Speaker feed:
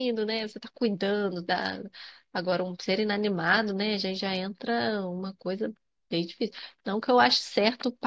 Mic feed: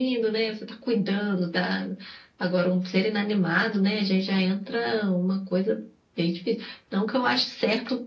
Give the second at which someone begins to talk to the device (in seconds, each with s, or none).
none